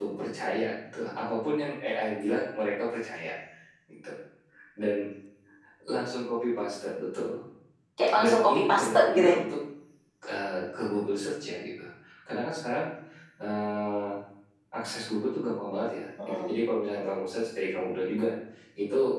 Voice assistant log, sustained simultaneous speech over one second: present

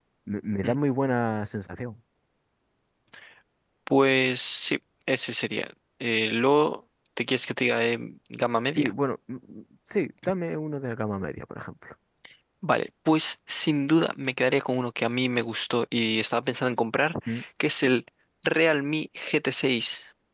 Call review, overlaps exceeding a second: none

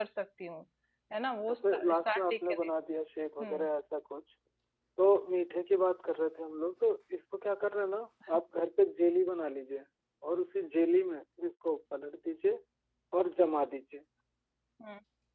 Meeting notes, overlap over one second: present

